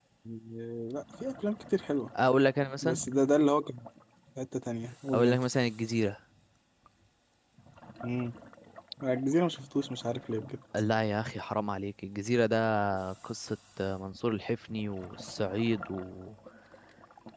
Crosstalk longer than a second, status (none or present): none